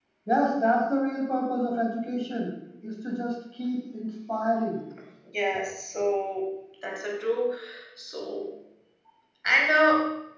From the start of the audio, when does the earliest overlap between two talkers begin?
none

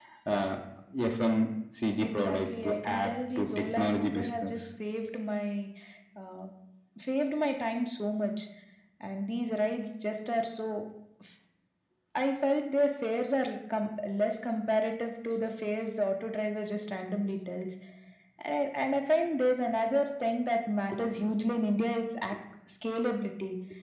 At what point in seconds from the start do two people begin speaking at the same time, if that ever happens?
2.0 s

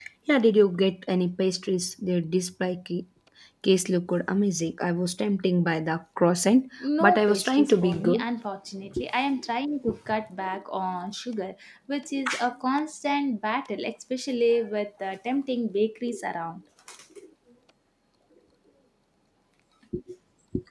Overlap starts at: 6.8 s

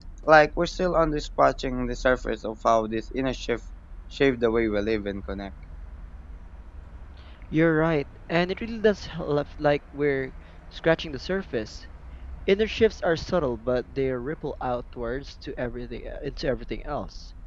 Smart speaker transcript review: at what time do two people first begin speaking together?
none

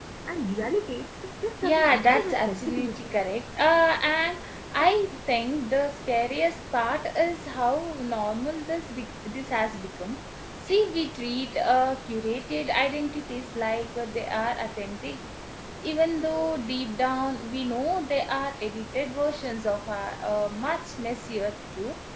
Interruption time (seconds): 1.6 s

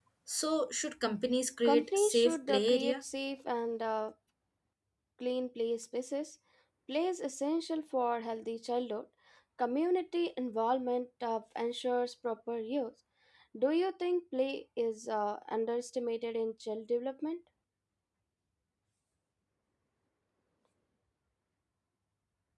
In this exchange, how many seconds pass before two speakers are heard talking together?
1.6 s

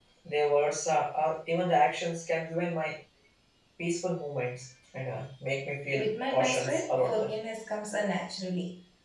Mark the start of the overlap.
6.0 s

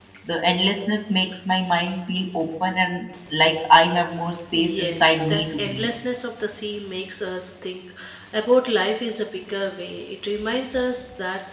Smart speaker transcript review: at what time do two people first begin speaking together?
4.5 s

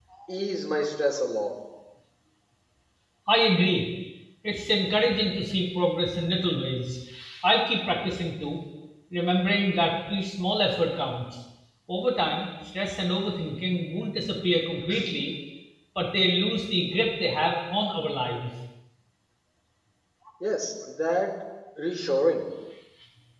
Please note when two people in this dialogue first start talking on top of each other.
none

